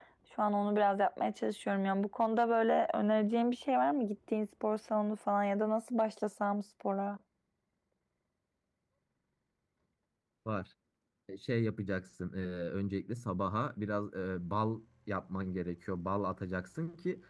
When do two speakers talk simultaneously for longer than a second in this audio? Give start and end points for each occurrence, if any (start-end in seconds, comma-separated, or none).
none